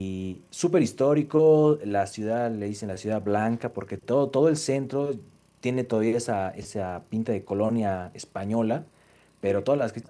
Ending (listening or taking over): listening